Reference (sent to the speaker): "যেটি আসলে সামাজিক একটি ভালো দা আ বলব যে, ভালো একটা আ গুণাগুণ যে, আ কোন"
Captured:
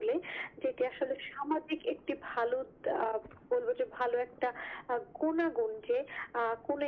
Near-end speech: none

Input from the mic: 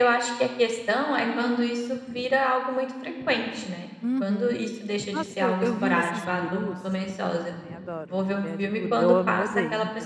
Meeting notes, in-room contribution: present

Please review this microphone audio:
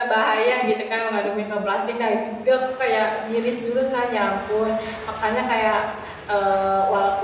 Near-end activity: present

